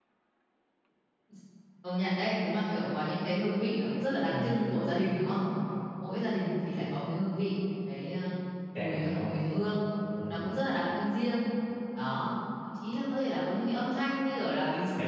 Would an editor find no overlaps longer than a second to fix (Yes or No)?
Yes